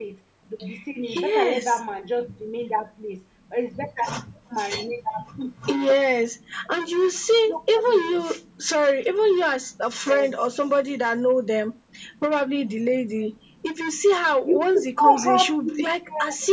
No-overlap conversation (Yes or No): No